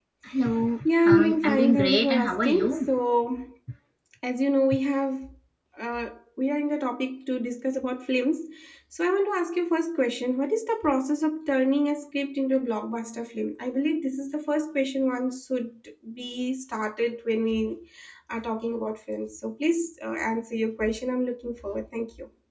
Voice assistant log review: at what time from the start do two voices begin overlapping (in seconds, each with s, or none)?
1.0 s